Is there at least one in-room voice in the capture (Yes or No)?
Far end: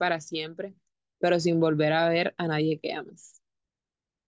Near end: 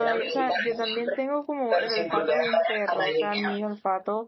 Yes